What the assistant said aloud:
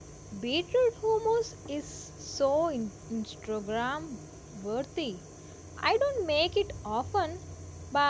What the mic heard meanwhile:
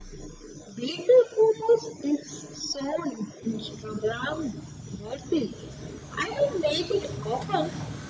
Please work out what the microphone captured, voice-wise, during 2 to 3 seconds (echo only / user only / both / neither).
echo only